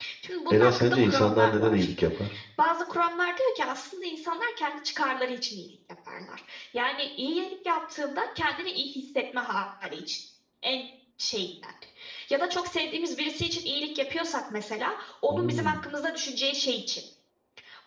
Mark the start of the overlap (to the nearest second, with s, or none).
1 s